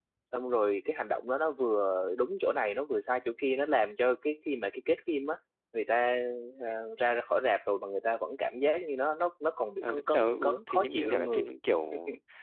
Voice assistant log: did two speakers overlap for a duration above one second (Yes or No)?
Yes